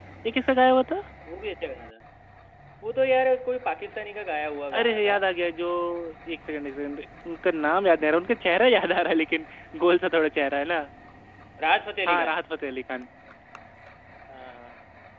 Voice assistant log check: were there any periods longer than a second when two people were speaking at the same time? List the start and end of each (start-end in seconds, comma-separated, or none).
none